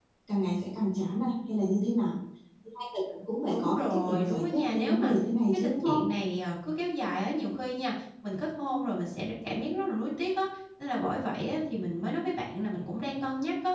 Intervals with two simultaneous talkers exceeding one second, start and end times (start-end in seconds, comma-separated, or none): 3.5-5.1